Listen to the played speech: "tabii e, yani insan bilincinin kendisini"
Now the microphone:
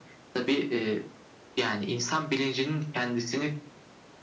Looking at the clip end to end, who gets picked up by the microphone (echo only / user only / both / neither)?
echo only